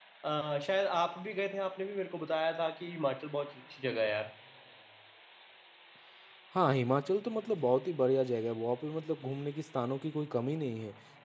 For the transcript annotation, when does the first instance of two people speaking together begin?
none

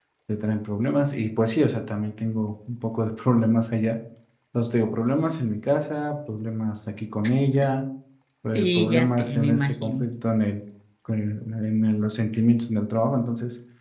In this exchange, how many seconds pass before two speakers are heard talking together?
8.5 s

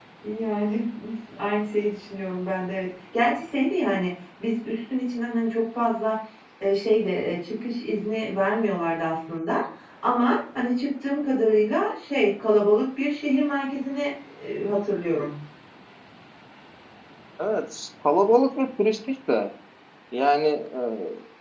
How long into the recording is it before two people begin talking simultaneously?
none

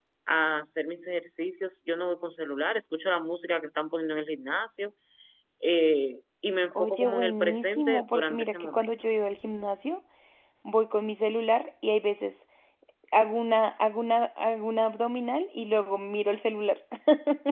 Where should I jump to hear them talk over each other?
6.7 s

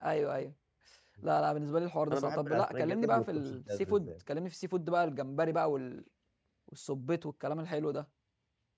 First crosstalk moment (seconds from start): 2.1 s

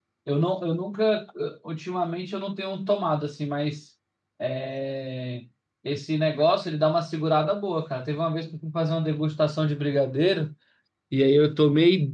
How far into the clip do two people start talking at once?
none

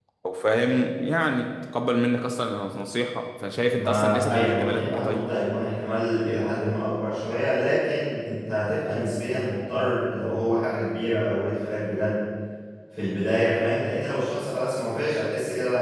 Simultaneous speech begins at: 3.7 s

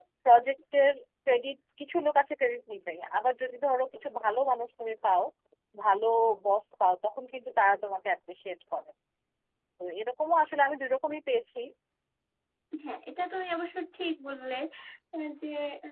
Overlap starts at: none

